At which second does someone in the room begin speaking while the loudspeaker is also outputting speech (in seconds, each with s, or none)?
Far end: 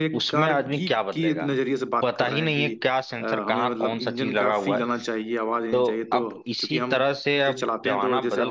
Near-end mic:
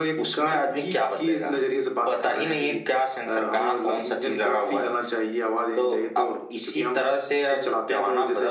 none